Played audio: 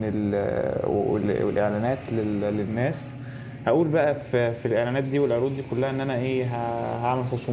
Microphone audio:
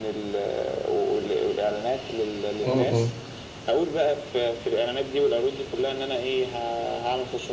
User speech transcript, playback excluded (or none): امم